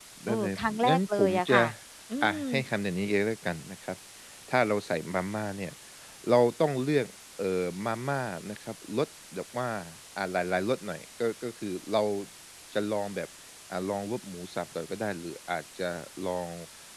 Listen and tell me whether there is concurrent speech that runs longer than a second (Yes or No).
Yes